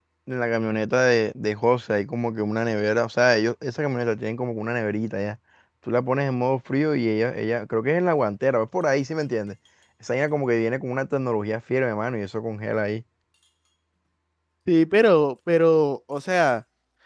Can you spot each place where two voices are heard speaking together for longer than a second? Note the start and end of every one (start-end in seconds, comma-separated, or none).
none